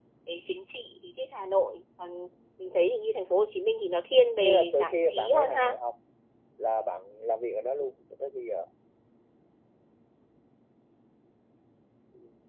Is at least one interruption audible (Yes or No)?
Yes